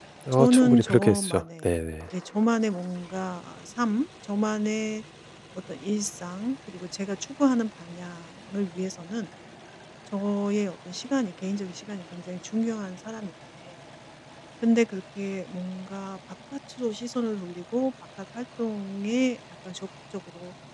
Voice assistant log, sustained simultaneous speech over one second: present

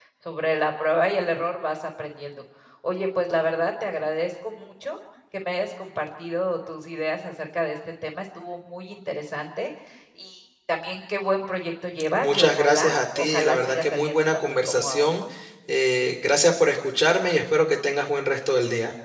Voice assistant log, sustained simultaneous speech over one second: present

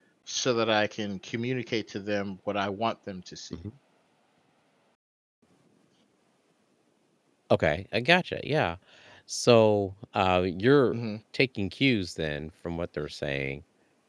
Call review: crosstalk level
none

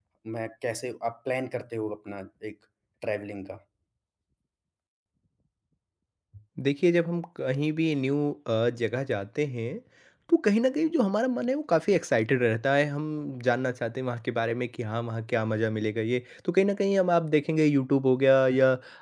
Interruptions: none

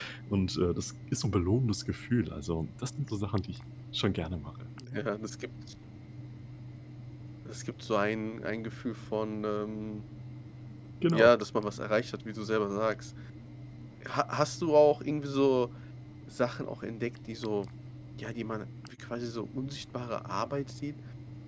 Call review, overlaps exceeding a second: none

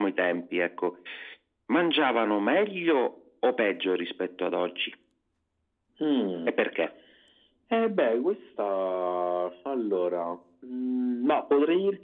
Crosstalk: none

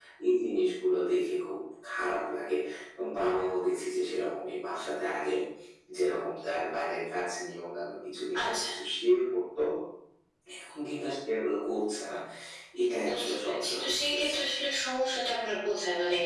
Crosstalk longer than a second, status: present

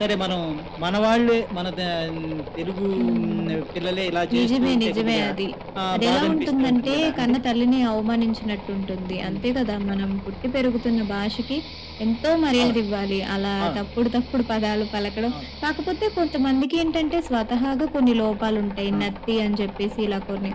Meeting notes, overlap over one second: present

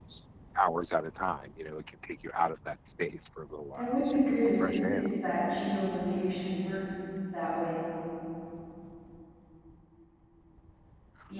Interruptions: present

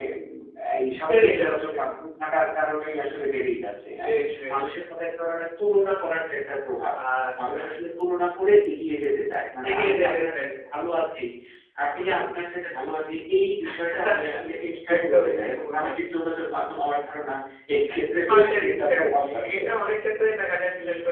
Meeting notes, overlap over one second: present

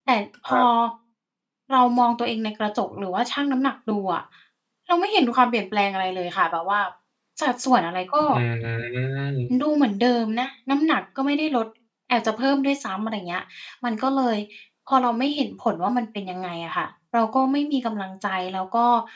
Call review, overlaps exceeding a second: none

